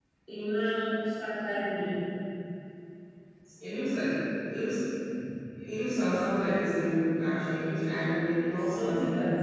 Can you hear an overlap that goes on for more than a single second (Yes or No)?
Yes